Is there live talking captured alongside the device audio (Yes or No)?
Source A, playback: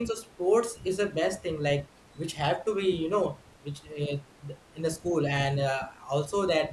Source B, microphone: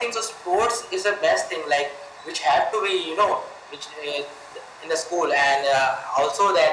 No